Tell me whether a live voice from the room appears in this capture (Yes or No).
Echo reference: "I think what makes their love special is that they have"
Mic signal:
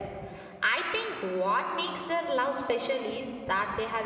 No